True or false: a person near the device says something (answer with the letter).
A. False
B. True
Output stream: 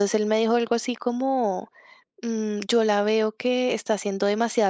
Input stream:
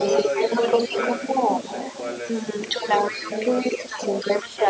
B